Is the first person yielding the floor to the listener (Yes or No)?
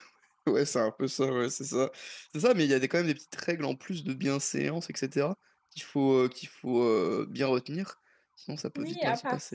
Yes